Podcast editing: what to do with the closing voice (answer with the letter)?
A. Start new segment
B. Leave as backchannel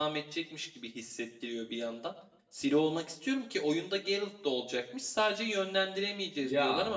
B